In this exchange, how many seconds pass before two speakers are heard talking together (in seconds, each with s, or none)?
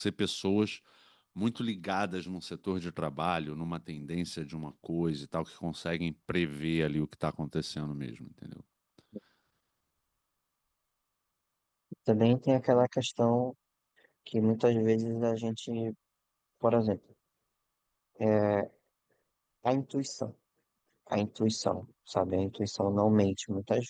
none